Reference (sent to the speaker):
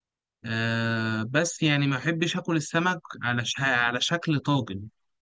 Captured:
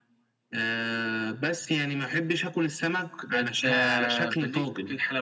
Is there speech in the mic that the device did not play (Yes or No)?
Yes